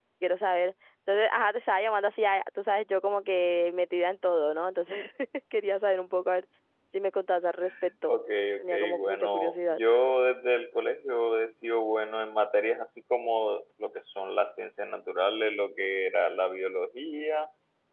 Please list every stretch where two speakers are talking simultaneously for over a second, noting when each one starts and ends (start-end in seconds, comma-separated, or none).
8.6-9.8